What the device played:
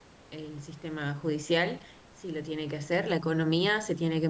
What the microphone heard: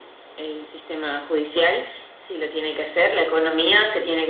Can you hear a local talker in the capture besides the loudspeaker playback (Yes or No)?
No